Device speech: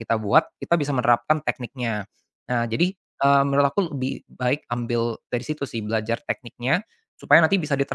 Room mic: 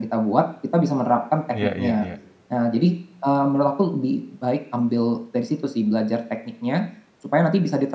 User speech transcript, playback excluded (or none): Iya iya iya.